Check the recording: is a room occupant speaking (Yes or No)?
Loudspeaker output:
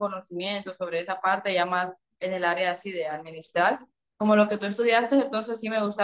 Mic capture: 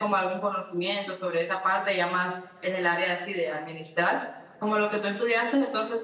No